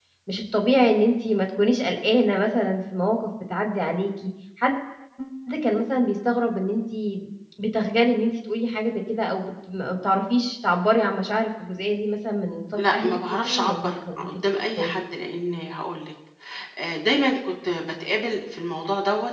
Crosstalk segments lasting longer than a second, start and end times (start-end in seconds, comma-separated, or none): 12.9-14.9